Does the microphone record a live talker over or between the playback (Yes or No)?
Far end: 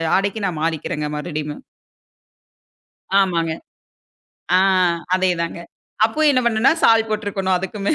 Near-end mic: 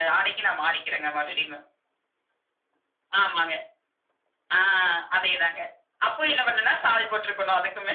No